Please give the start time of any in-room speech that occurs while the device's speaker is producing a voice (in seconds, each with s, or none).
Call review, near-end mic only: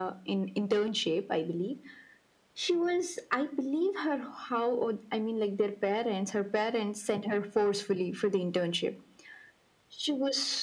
none